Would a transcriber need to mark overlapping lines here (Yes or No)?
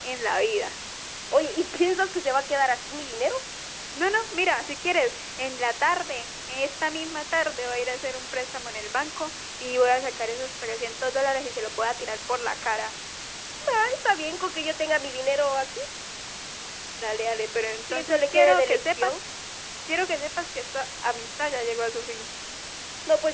Yes